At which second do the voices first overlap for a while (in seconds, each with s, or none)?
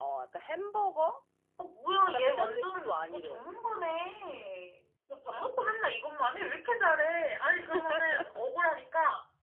2.1 s